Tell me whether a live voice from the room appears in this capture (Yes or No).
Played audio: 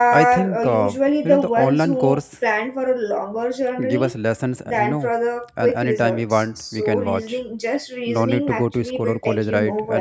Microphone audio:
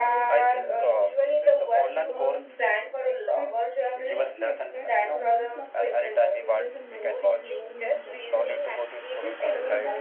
Yes